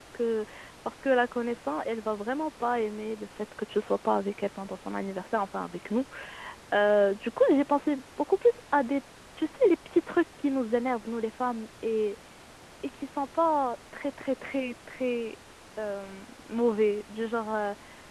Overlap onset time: none

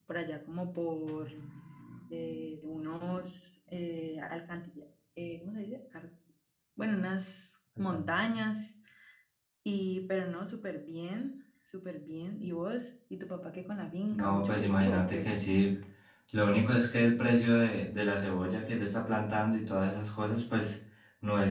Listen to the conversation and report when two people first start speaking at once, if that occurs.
14.1 s

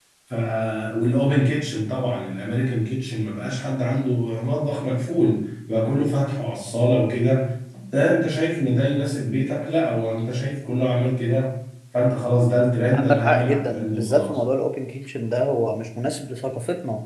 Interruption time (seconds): 12.9 s

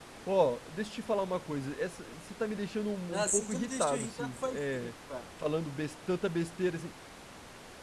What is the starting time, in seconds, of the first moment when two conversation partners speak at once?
3.1 s

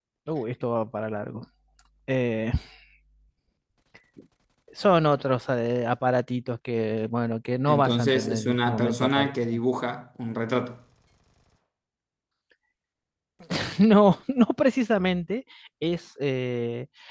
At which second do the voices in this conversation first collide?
7.7 s

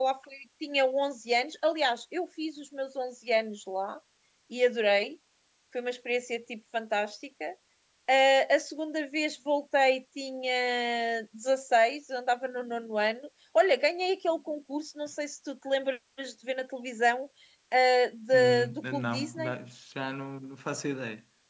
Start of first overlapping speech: 18.3 s

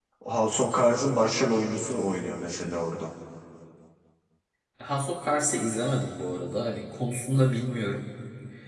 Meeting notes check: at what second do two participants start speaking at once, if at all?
none

